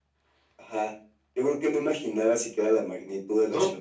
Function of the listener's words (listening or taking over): taking over